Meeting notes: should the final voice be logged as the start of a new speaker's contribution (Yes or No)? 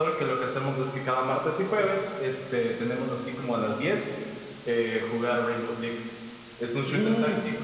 Yes